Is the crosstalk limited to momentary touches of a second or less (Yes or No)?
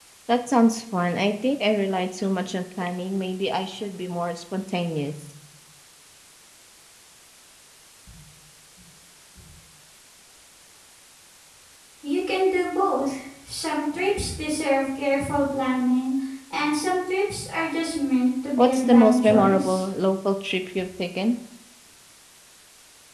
No